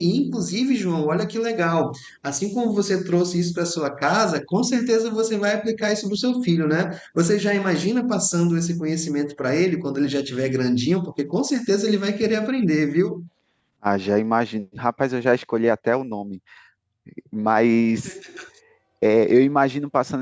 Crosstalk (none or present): none